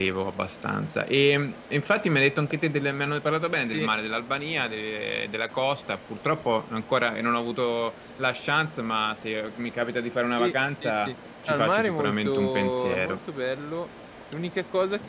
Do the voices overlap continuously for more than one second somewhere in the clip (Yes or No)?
Yes